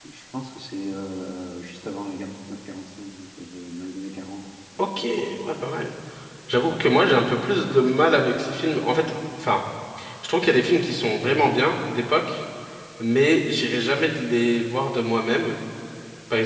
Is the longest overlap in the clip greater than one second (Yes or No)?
No